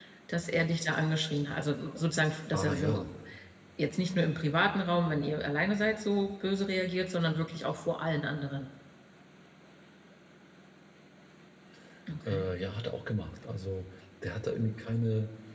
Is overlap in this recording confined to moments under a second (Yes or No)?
Yes